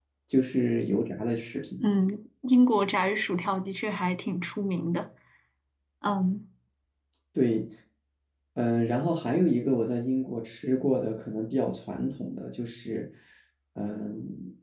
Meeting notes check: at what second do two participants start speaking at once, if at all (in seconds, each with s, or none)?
none